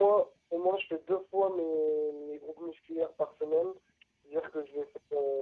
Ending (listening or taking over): listening